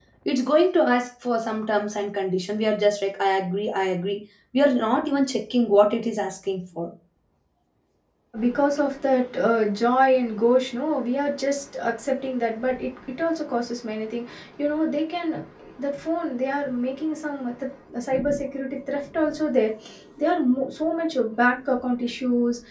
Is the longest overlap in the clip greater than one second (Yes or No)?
No